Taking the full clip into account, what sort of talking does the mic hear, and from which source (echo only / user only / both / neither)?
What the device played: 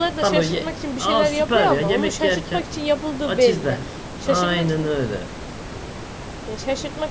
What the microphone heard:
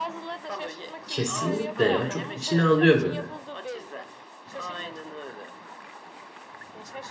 both